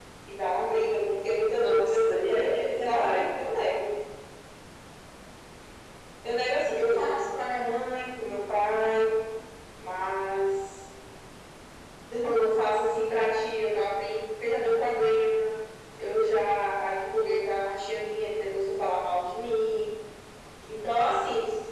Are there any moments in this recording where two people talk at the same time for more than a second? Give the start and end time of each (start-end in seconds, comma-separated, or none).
1.5-3.3